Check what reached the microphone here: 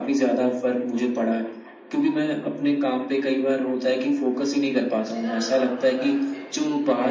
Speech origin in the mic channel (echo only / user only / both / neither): both